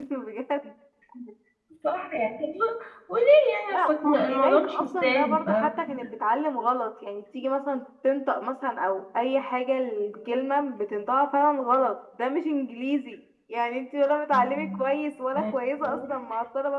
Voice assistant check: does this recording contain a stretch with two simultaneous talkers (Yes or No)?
Yes